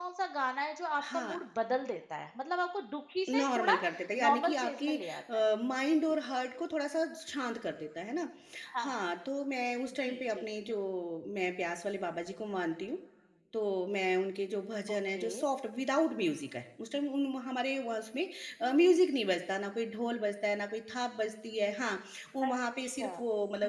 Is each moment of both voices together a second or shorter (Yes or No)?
No